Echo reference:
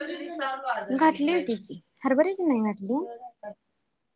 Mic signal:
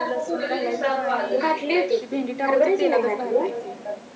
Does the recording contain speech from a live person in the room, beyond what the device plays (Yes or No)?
Yes